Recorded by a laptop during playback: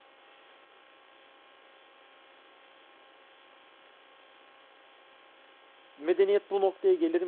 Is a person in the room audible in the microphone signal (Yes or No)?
Yes